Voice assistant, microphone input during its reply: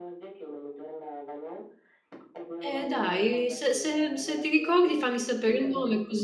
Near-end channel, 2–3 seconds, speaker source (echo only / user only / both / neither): both